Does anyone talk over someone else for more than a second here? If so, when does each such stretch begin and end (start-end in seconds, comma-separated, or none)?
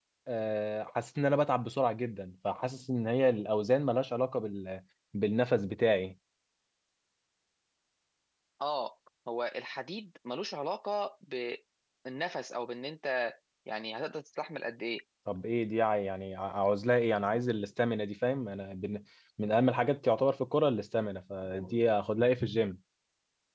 none